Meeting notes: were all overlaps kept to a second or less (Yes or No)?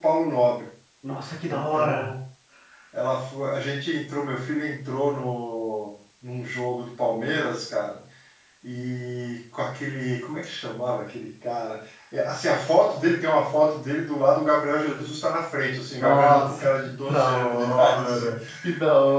No